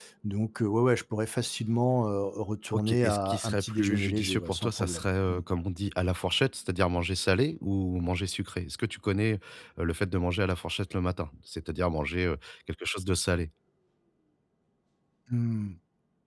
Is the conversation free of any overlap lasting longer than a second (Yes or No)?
No